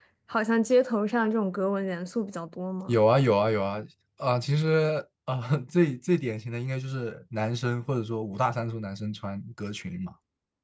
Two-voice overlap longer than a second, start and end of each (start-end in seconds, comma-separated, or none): none